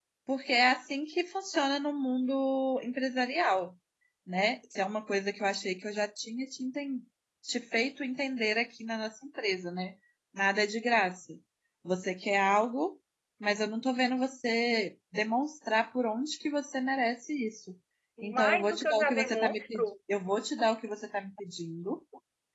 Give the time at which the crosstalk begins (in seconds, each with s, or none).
18.2 s